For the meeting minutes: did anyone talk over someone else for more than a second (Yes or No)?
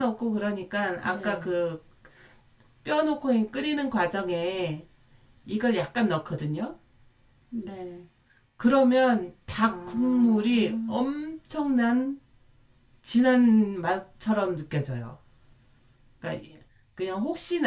Yes